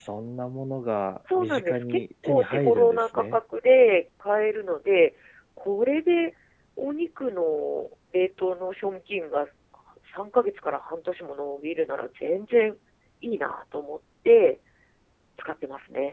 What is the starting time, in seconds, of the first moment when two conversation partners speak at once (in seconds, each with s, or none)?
1.3 s